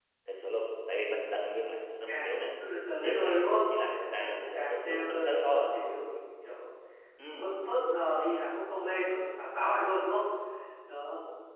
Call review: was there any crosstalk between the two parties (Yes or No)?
Yes